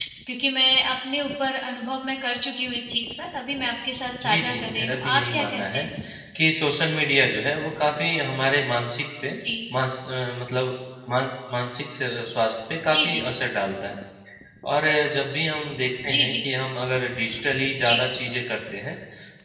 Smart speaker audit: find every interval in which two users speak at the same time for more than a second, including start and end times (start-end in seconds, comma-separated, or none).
4.2-5.8